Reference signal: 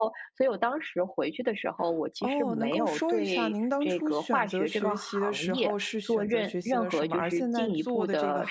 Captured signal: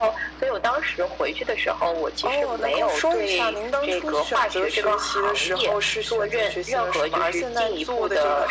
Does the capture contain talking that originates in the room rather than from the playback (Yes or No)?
No